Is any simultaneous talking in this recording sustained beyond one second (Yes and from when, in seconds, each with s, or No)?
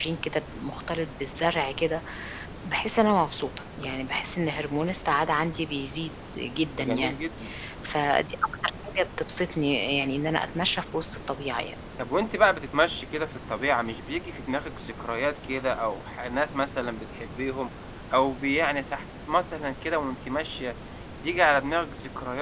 No